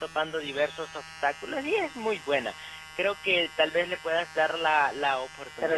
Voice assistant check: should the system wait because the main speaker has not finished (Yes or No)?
No